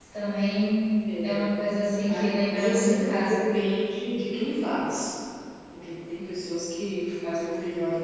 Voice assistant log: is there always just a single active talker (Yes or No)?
No